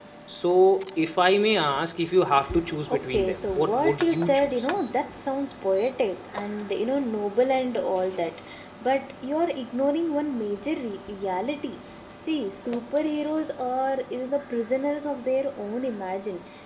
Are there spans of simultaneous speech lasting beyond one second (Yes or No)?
Yes